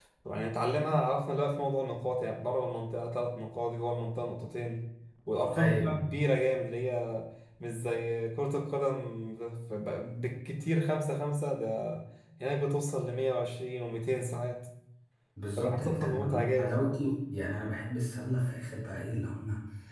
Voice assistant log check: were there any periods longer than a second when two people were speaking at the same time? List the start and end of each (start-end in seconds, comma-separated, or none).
15.6-17.2